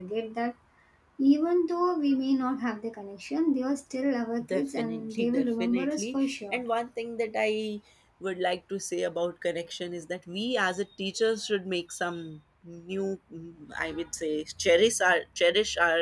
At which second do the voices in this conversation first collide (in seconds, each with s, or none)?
4.4 s